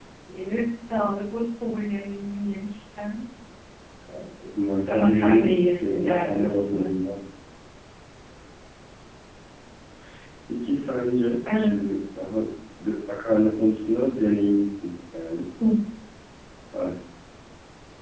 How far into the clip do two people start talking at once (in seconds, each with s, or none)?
4.8 s